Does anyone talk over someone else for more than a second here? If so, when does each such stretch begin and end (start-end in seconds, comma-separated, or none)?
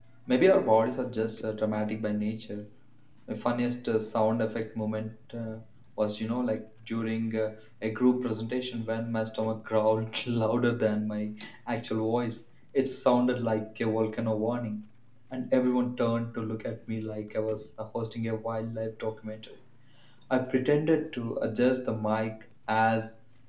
none